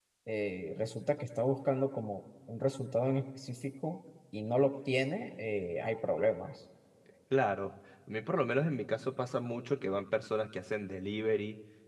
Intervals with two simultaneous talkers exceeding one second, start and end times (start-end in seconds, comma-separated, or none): none